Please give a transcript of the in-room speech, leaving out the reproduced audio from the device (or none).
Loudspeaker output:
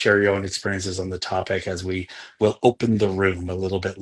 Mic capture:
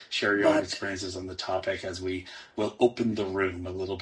but